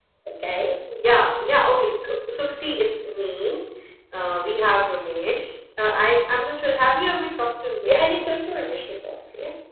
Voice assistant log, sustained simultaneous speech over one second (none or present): none